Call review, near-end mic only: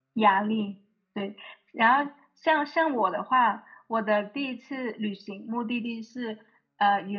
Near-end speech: present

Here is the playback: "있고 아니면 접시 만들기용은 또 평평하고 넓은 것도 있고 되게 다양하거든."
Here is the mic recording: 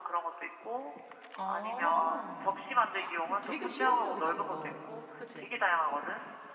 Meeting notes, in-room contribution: present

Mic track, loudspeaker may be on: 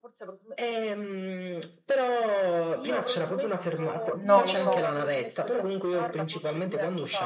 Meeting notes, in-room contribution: present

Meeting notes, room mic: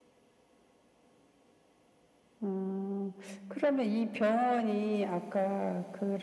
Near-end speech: none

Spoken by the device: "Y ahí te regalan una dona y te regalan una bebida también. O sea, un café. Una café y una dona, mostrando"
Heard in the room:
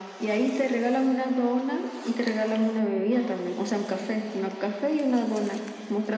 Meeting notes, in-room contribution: none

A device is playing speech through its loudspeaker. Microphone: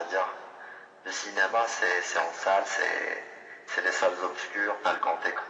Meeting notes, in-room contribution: none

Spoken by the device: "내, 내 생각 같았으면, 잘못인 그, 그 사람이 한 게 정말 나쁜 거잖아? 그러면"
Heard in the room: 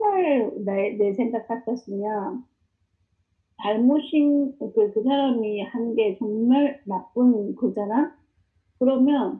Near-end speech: none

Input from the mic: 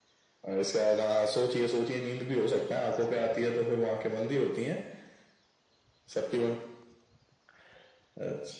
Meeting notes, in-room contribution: none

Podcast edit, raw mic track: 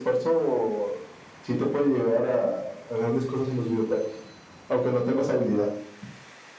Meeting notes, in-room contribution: none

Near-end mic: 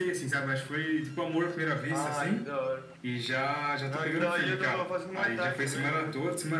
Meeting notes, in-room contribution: none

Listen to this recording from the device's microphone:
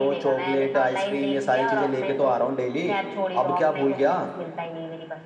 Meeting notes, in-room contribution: none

